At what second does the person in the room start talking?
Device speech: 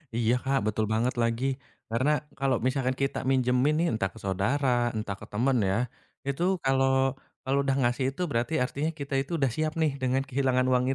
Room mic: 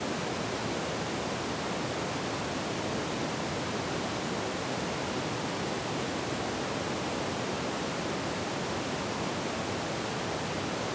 none

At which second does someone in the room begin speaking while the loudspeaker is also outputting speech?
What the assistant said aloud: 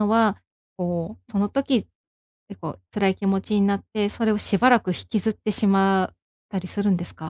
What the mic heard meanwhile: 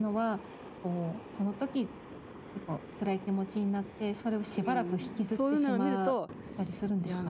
4.6 s

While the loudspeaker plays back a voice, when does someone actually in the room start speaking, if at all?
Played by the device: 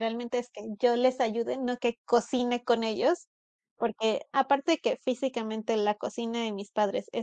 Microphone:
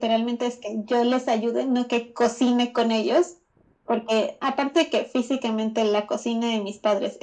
none

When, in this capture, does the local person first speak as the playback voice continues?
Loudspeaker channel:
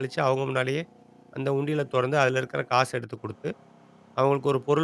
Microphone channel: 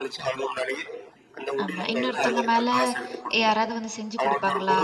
1.6 s

